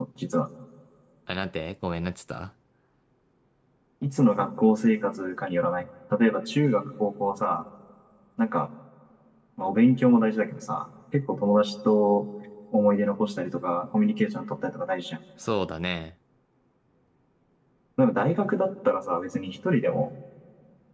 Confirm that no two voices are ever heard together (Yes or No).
Yes